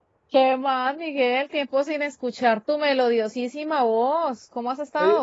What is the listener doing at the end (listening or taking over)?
taking over